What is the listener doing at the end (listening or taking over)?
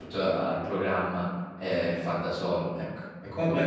taking over